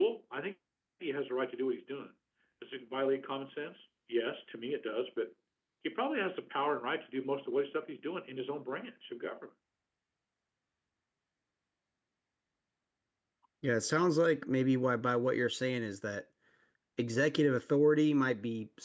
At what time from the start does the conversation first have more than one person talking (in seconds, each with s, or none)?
none